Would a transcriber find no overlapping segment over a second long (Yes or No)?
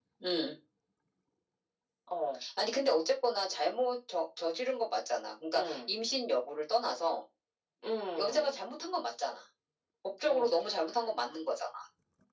Yes